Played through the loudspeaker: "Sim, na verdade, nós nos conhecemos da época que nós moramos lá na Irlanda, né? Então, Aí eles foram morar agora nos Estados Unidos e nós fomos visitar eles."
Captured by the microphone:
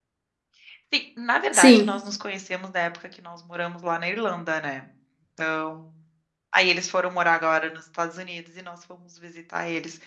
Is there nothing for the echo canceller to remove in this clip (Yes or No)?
No